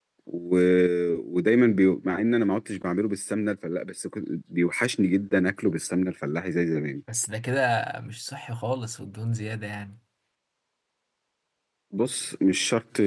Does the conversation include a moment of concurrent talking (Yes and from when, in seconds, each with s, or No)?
No